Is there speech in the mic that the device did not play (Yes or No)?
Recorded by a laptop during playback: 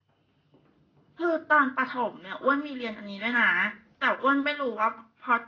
Yes